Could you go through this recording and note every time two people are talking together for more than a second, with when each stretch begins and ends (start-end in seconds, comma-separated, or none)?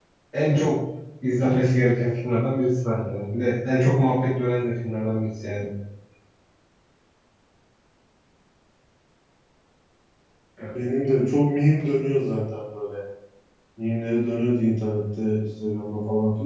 none